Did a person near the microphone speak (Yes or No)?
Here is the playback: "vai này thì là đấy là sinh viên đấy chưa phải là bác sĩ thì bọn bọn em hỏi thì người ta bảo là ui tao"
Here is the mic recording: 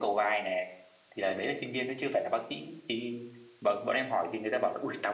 No